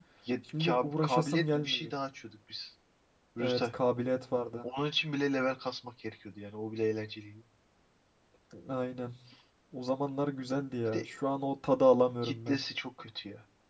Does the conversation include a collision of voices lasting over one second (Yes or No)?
Yes